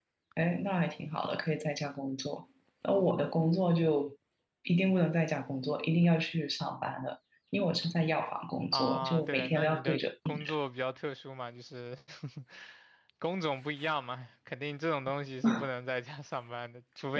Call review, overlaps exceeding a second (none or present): present